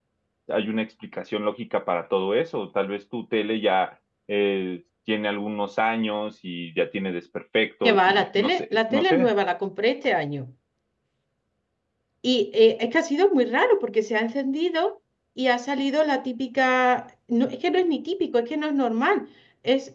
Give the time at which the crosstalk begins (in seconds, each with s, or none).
7.8 s